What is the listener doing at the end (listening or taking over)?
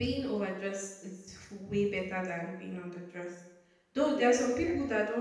listening